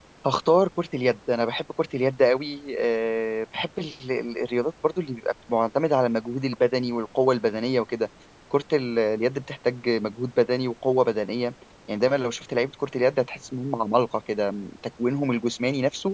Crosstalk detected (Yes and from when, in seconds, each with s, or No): No